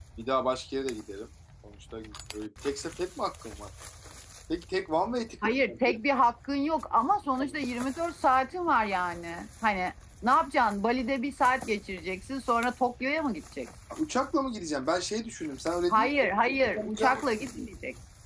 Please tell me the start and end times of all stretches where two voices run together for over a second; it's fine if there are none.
15.9-17.7

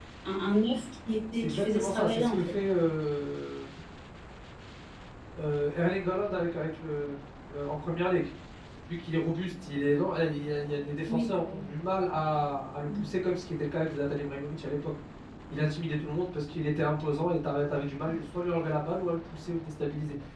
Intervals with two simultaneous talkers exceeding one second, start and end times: 1.3-2.6

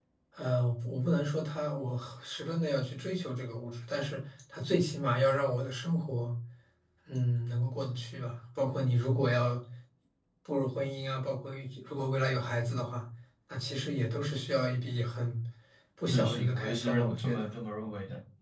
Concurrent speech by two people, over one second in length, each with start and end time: 16.1-17.5

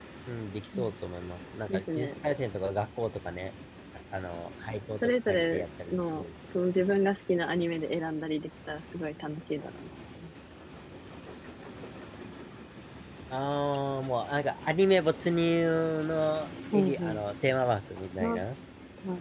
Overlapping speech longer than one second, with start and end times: 5.0-6.3

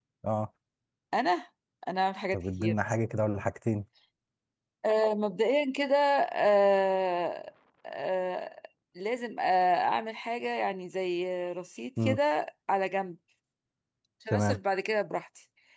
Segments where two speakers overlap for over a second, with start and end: none

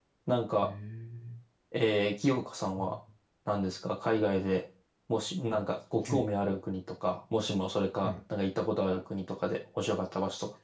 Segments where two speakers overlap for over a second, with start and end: none

